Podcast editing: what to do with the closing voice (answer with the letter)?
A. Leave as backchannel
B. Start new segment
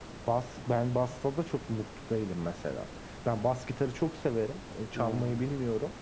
A